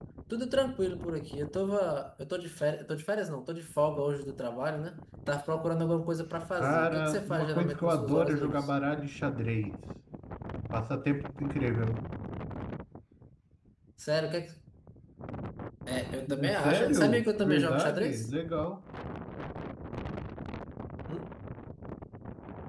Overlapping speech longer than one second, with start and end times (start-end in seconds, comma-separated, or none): 6.5-8.7, 16.4-18.3